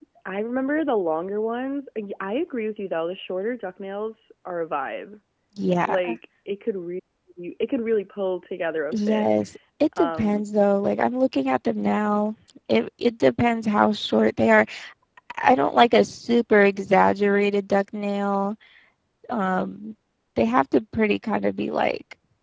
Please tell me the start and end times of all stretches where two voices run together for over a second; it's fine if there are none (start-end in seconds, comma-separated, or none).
none